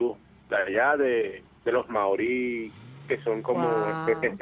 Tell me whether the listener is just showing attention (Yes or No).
Yes